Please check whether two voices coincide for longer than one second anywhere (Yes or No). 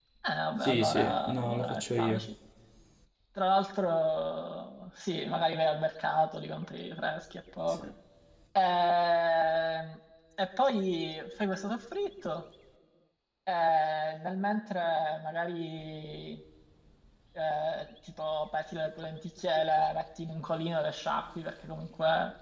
Yes